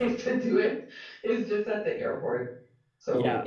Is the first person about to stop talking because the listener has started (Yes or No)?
Yes